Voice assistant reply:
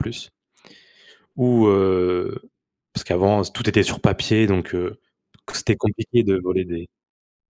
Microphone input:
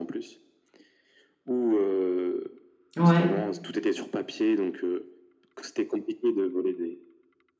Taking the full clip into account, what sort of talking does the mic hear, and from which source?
both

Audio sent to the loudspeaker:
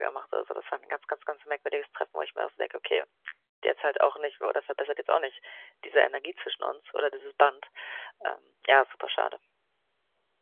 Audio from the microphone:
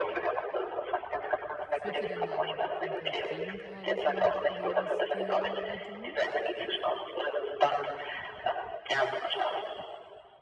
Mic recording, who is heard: both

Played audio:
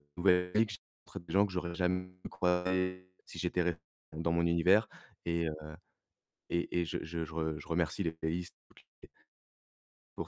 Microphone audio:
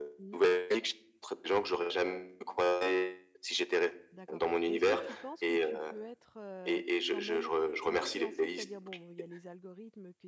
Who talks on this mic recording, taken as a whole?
both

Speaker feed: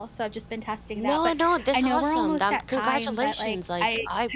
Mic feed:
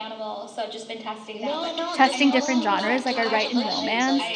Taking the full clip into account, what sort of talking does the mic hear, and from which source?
both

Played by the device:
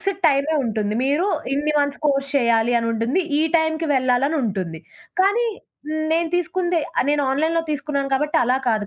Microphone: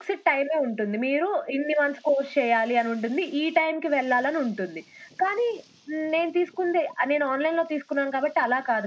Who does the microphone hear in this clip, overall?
echo only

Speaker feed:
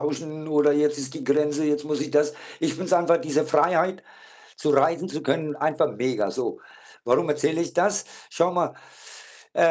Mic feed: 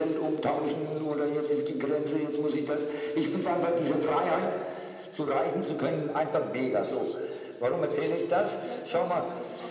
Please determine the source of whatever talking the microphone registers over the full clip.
both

